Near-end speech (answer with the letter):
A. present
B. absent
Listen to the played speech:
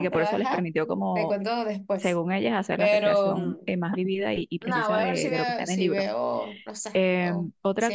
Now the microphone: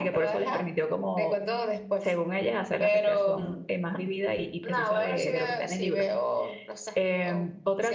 B